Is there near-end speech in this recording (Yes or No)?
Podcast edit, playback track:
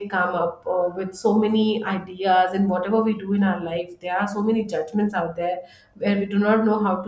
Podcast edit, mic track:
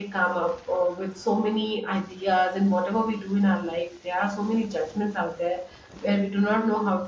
No